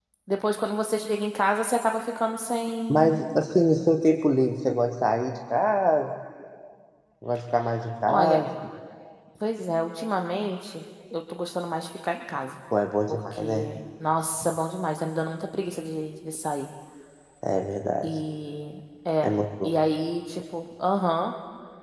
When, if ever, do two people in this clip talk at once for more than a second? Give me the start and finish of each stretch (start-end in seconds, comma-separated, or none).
none